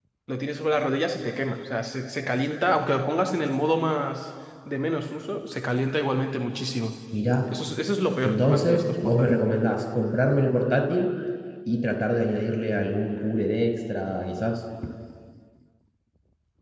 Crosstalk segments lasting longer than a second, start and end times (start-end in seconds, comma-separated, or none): 8.2-9.4